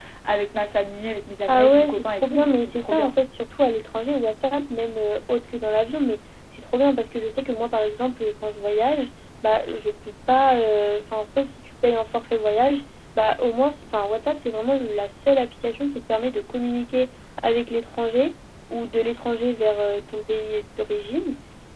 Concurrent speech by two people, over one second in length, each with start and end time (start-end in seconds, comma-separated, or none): 1.5-3.1